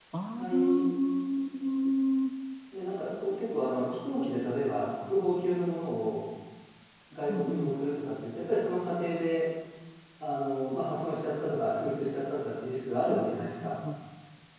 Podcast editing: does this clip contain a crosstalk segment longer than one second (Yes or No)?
No